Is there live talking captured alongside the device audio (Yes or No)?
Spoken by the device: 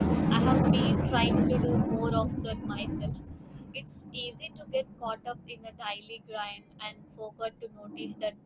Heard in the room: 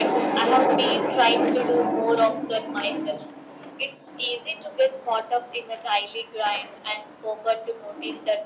No